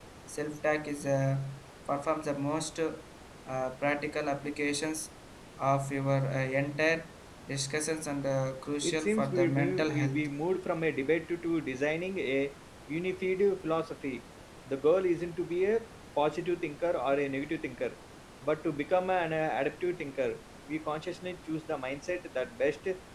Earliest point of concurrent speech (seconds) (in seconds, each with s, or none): 8.8 s